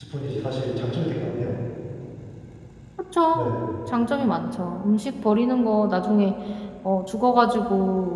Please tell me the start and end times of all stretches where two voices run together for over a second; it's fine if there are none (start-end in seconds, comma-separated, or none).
none